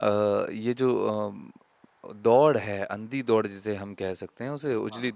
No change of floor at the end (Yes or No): Yes